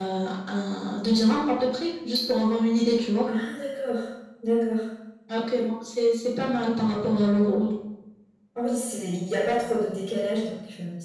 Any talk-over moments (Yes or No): No